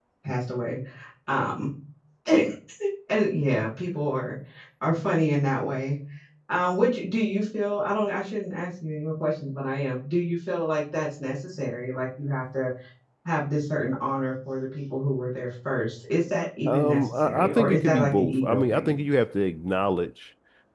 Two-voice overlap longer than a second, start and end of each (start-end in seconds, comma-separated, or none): 16.7-19.0